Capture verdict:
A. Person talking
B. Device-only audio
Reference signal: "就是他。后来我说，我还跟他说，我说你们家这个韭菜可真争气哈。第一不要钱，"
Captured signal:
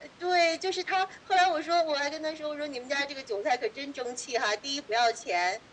B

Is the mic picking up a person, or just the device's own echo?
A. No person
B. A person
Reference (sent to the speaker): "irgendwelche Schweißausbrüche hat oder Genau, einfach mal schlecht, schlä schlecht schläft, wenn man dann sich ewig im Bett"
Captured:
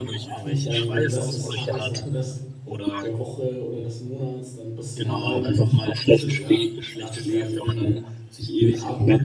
B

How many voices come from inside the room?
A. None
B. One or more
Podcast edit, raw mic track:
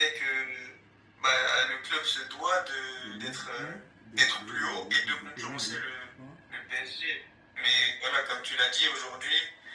B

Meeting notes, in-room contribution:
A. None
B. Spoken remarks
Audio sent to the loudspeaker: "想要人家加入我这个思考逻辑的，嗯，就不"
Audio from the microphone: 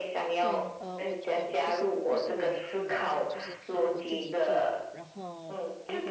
B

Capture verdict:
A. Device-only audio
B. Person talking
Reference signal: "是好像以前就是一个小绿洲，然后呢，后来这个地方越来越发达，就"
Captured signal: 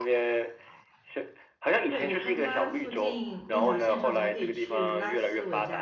B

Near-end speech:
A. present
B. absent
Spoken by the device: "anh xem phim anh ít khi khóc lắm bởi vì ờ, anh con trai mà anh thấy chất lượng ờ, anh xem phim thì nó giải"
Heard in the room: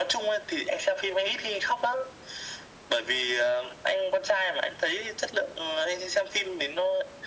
B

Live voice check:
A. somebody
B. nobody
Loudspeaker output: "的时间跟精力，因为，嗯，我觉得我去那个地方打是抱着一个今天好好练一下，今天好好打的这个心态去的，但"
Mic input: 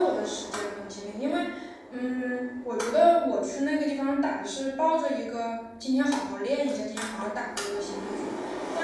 B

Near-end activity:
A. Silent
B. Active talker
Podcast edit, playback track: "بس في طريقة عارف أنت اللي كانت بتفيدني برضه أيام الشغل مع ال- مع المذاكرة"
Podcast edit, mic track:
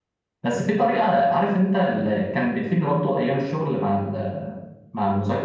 A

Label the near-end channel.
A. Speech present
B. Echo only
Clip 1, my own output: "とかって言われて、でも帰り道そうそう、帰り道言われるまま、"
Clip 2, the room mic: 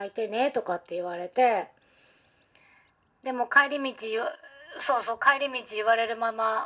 B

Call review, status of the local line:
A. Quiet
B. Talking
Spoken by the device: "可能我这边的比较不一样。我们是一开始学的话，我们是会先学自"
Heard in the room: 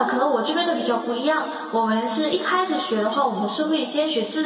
A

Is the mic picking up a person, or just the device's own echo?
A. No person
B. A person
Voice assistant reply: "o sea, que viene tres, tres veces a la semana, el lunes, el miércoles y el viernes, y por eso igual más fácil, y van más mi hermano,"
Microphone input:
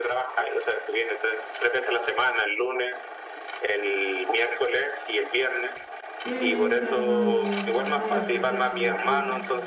B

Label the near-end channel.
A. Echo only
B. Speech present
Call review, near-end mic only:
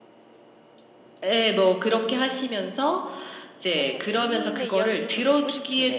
B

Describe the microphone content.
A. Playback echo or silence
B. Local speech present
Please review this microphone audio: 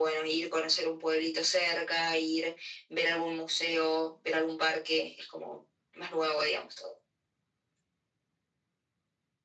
A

